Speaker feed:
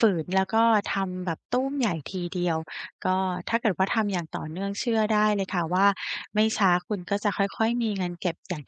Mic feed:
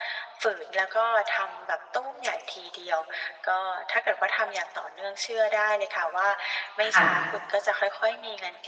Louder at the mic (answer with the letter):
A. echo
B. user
B